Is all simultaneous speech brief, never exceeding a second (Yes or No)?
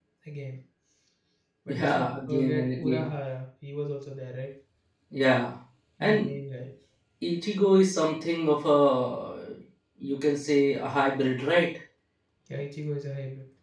No